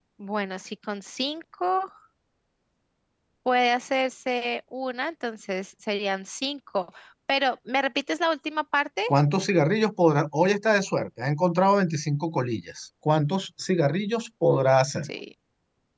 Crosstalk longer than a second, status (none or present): none